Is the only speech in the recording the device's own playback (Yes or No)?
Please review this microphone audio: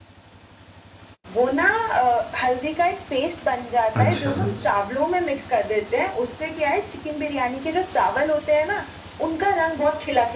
No